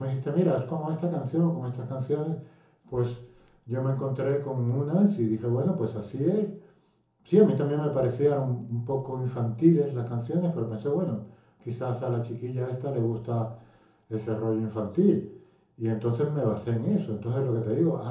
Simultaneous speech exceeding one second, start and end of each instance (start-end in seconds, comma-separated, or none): none